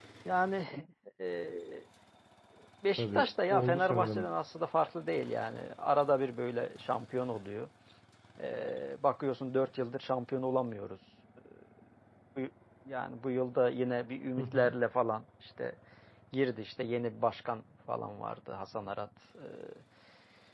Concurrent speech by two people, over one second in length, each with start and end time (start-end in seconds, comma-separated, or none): 3.0-4.3